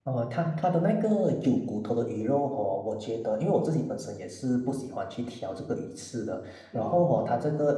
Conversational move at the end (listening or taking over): listening